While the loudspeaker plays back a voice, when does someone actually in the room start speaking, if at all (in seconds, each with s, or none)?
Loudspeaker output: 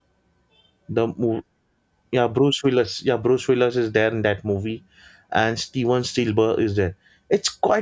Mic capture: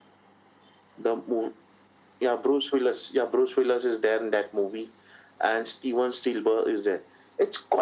none